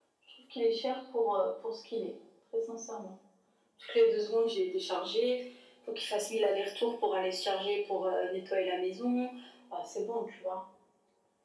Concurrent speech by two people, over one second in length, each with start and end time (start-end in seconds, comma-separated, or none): none